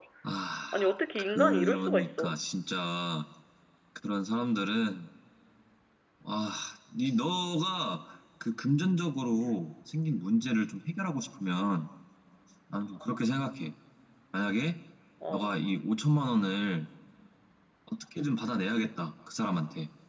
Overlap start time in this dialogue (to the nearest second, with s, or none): 1 s